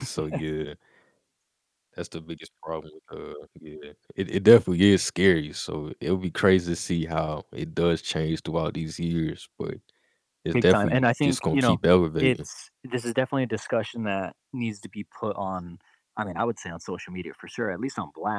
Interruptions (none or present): present